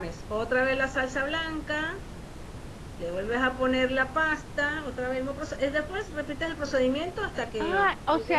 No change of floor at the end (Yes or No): No